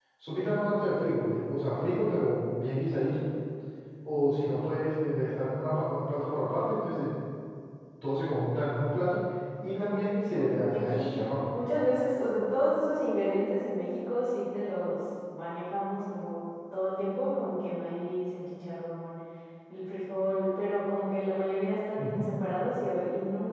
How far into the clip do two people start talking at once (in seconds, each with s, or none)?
9.7 s